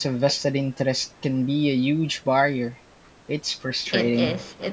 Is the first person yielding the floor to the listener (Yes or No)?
Yes